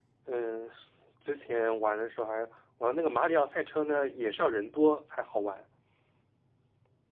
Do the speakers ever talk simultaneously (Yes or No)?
No